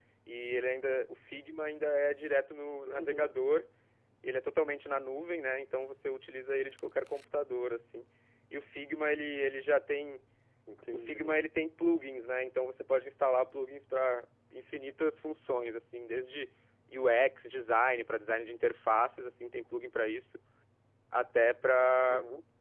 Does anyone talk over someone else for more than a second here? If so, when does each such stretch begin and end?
none

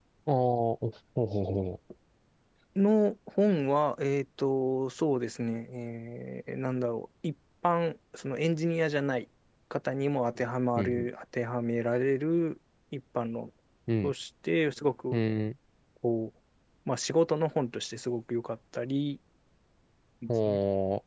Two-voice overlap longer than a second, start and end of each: none

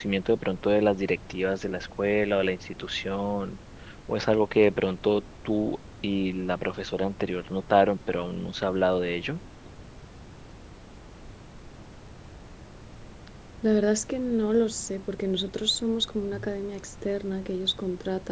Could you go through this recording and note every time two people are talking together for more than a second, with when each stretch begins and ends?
none

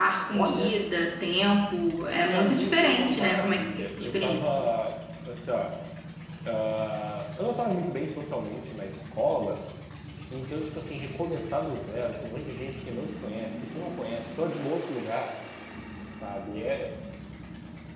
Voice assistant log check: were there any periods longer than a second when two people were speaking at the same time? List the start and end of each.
2.3-4.7

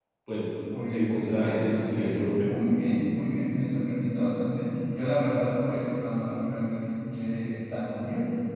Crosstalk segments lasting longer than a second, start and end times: 0.9-2.5

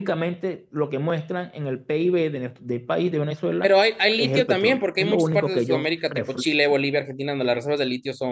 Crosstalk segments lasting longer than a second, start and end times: 4.2-5.9

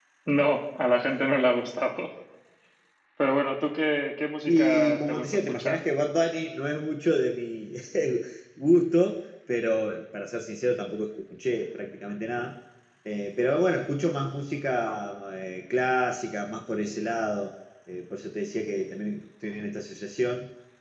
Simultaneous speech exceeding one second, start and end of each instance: 4.5-5.8

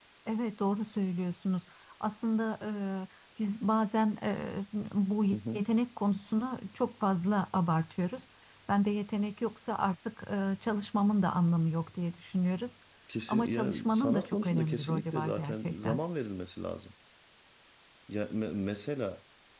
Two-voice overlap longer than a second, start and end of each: 13.3-16.0

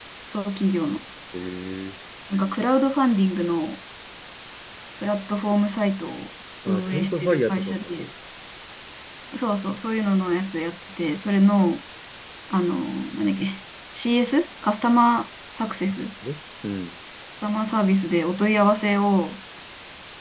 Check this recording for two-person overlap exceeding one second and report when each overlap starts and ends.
6.7-7.9

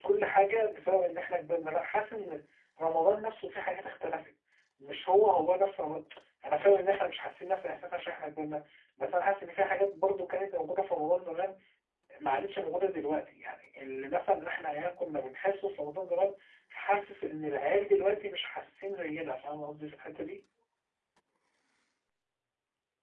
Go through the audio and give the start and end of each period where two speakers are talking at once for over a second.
none

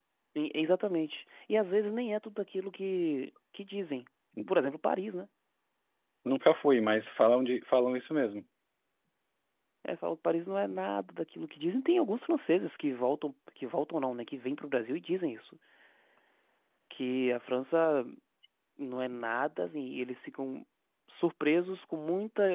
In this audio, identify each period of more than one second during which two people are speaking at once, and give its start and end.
none

